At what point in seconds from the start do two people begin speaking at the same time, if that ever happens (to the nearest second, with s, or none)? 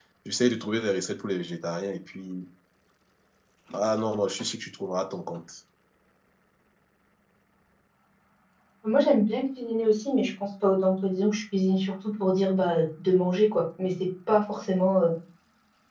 none